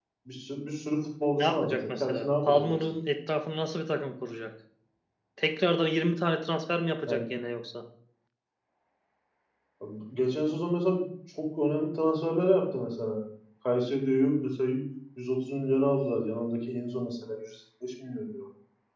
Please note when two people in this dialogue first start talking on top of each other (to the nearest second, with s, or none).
1 s